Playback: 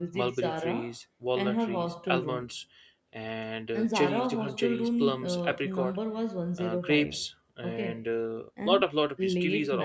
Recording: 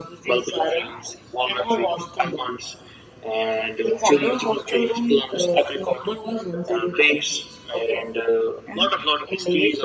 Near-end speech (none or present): none